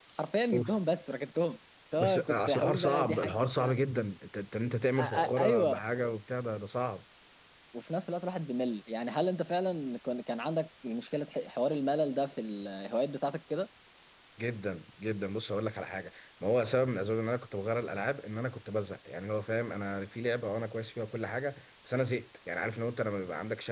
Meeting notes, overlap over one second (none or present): present